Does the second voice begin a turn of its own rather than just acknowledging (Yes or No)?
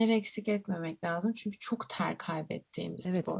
Yes